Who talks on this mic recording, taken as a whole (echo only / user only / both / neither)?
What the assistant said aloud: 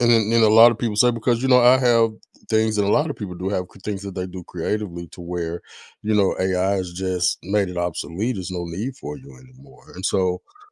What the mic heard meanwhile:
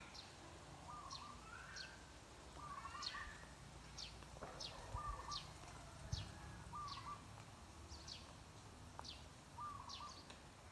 neither